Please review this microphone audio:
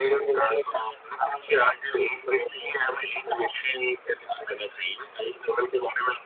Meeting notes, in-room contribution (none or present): none